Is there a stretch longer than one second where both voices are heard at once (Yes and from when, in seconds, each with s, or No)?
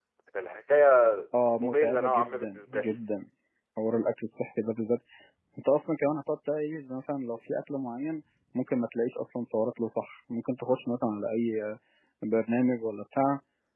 Yes, from 1.6 s